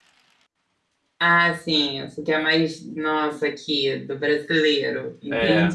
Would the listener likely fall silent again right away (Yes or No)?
No